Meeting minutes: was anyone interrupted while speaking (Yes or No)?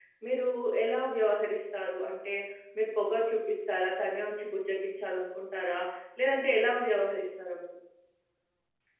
No